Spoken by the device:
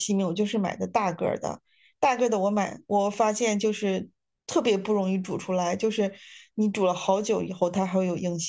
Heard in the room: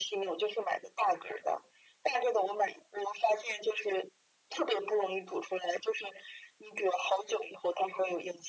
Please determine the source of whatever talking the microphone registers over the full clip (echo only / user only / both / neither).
echo only